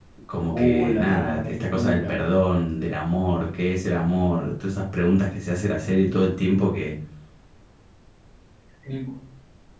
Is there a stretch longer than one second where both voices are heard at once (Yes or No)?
Yes